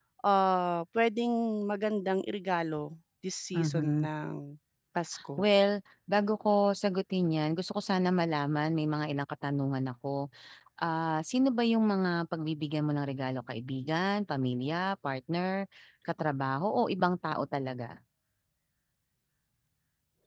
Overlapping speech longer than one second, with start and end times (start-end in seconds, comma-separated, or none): none